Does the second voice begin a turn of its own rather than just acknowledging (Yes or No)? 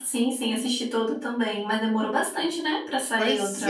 Yes